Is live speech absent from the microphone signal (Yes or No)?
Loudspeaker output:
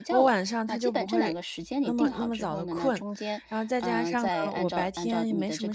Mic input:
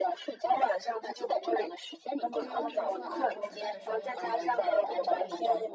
No